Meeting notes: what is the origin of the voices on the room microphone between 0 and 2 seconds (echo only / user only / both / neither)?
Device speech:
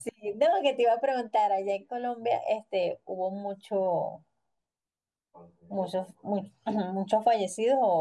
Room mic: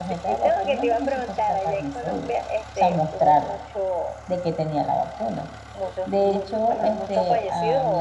both